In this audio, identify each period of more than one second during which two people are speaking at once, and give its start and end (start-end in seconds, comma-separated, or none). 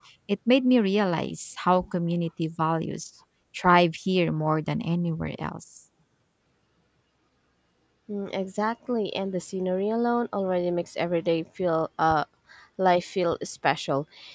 none